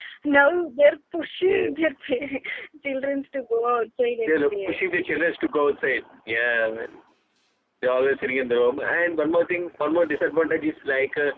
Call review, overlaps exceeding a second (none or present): none